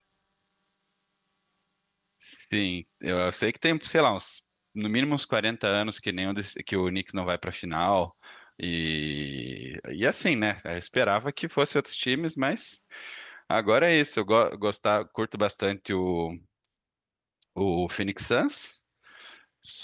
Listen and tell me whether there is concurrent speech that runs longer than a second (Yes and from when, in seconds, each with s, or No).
No